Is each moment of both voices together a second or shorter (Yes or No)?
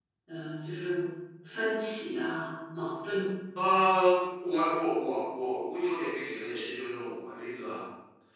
Yes